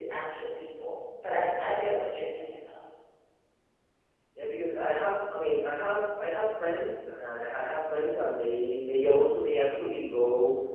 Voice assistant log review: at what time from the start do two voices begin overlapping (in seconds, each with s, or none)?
none